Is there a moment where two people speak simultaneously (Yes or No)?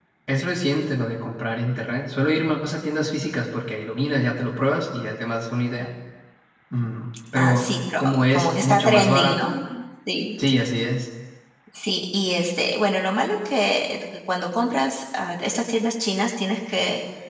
Yes